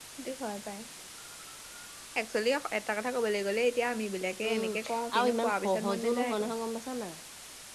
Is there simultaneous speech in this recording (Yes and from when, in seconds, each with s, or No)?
Yes, from 4.4 s